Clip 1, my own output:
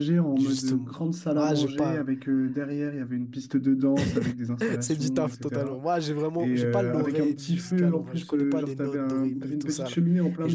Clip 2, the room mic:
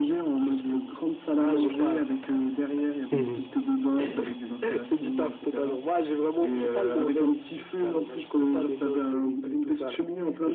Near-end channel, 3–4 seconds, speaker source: both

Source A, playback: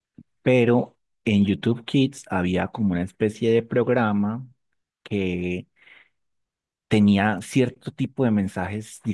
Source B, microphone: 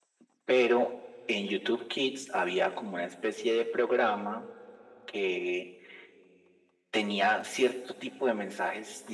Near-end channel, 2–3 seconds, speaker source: echo only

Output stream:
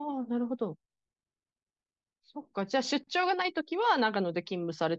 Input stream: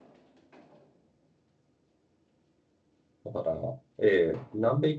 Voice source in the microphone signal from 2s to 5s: user only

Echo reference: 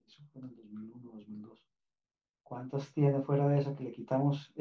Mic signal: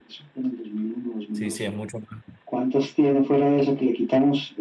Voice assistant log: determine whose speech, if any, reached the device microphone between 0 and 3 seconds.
both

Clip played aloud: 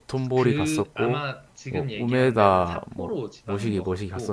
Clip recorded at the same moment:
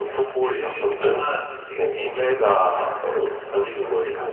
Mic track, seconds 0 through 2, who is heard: echo only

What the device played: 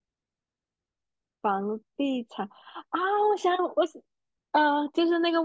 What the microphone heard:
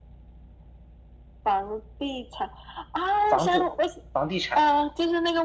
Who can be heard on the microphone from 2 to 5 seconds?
both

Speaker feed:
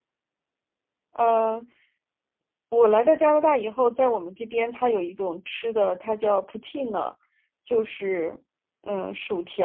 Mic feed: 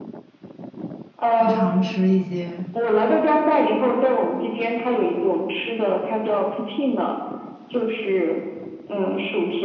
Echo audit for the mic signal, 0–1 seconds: neither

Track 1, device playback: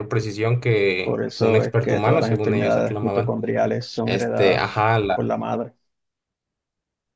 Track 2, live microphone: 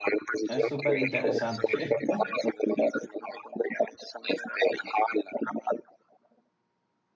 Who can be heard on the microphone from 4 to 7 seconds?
echo only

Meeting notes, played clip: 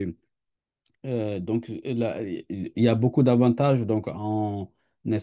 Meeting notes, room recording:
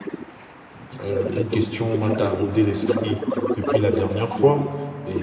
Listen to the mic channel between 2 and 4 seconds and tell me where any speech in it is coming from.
both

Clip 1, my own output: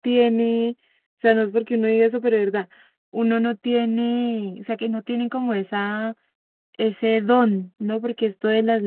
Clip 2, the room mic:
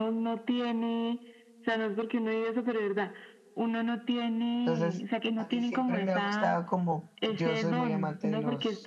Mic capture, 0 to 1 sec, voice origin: echo only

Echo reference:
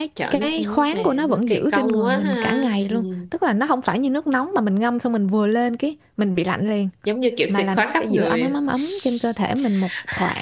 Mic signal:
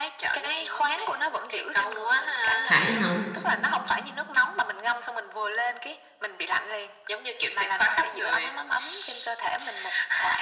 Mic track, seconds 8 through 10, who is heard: echo only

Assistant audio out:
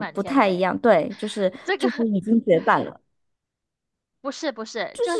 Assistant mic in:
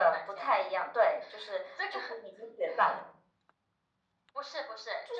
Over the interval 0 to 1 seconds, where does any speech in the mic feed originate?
echo only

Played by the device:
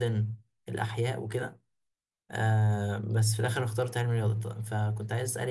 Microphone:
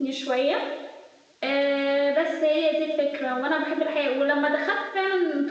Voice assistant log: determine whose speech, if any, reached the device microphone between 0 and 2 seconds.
user only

